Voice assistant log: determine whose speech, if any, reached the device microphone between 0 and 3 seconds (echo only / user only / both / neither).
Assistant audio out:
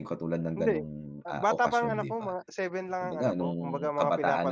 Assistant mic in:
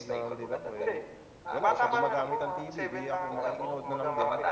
both